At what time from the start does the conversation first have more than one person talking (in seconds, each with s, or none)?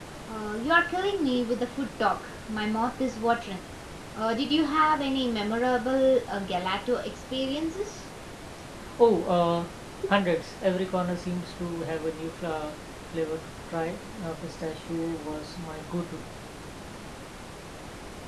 none